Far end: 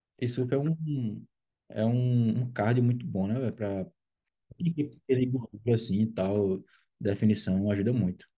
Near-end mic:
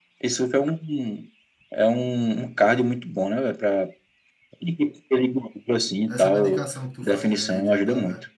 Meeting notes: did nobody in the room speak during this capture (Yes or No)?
No